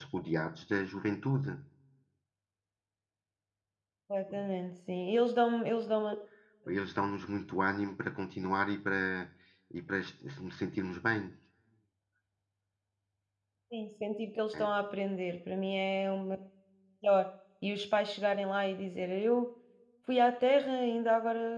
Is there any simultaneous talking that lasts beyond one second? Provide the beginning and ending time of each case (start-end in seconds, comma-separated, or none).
none